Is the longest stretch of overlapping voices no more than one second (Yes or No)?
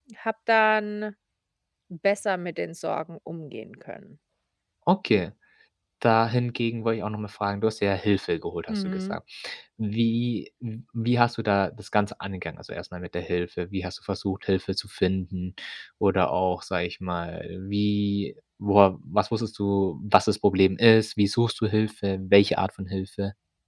Yes